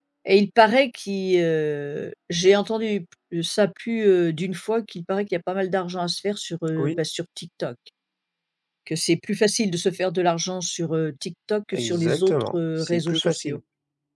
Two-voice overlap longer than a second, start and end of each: 11.7-13.6

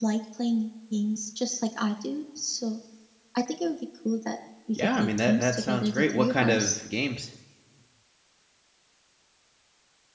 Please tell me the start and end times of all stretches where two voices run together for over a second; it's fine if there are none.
4.8-6.8

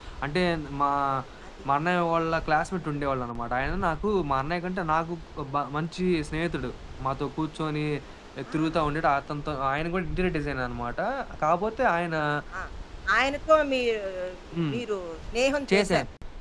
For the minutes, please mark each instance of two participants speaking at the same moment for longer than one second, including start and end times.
none

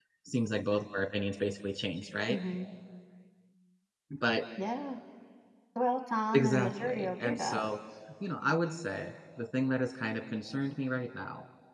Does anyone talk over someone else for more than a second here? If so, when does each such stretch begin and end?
6.3-7.7

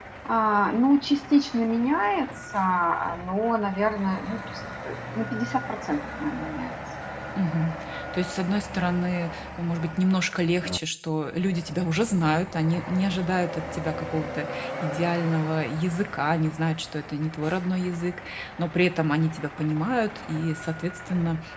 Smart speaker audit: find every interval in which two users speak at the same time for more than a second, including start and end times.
none

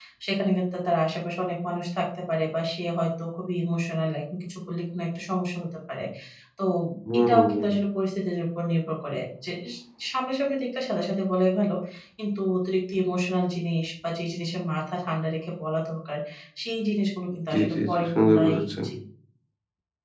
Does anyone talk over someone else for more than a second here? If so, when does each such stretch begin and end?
17.5-18.8

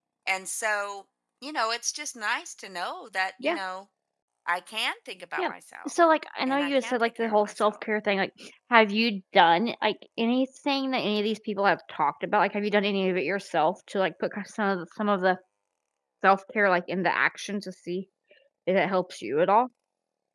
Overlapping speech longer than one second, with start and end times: 6.5-7.7

